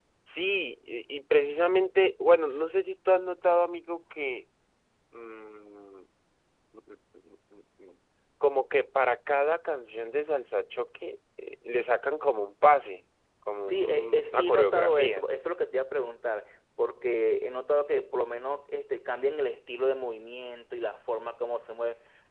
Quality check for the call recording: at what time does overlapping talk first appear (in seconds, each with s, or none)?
13.7 s